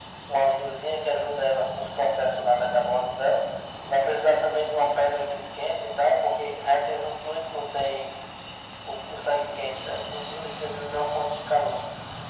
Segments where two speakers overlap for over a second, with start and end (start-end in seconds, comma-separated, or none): none